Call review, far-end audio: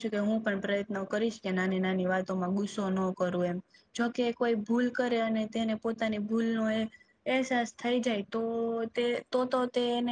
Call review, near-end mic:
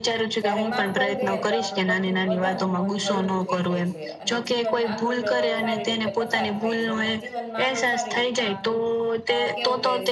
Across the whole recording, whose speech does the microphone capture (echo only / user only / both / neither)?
both